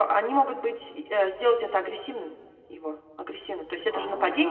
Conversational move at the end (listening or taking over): listening